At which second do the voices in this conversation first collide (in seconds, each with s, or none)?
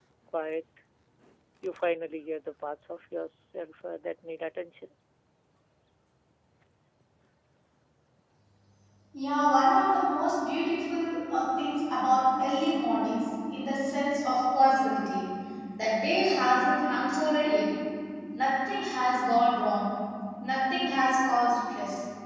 none